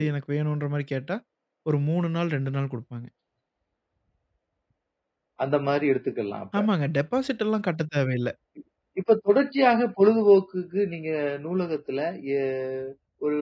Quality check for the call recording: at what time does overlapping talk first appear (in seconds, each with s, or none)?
none